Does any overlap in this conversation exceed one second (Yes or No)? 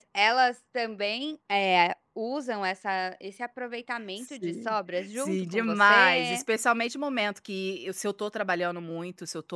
Yes